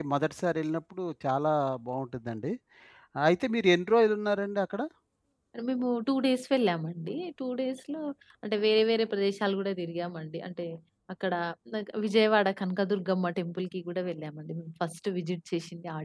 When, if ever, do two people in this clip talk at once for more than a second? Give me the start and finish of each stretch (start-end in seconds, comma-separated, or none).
none